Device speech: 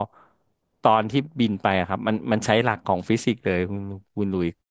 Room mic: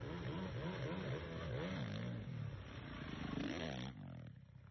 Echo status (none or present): none